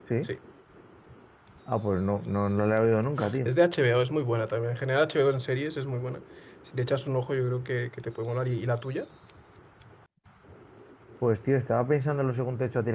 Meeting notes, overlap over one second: none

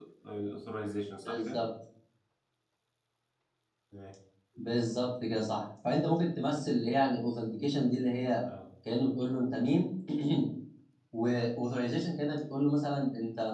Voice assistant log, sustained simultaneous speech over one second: none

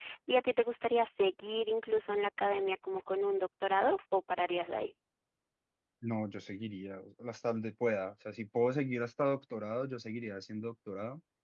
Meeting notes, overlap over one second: none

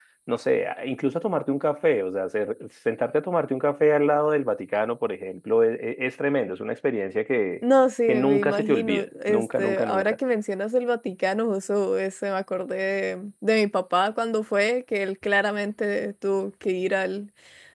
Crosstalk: present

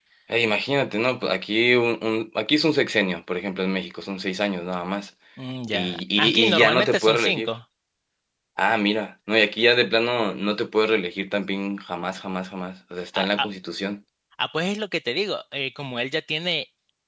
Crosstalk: present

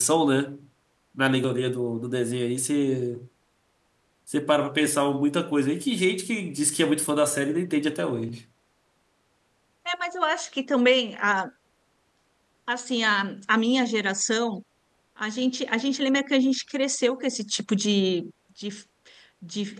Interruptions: none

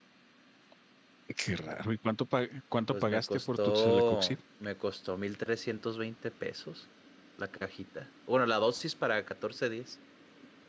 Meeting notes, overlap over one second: present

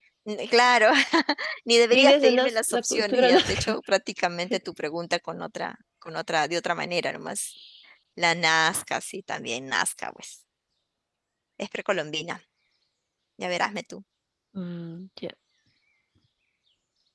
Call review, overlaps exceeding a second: present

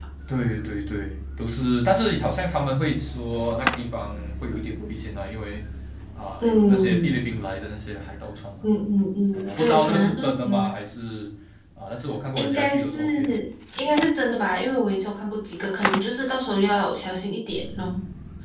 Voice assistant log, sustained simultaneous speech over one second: present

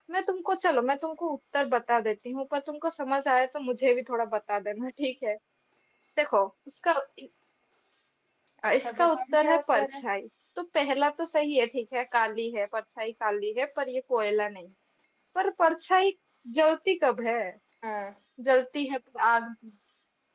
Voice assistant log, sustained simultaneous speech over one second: present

